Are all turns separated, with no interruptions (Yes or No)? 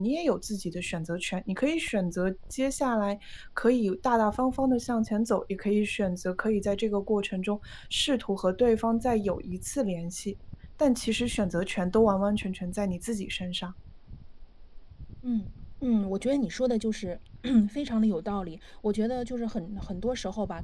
Yes